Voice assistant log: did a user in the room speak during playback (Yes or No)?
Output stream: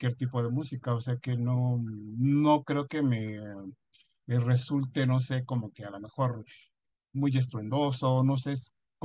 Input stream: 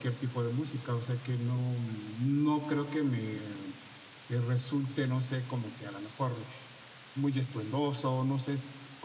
No